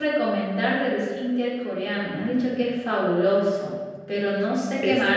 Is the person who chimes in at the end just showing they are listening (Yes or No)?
Yes